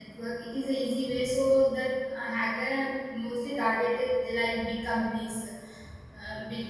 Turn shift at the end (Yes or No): Yes